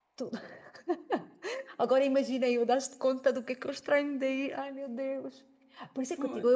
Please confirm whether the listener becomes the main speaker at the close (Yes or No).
No